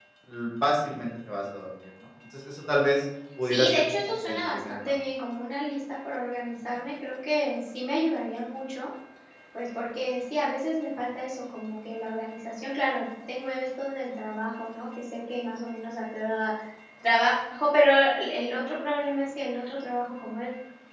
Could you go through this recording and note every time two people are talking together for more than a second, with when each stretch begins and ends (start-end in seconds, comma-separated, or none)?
3.4-4.8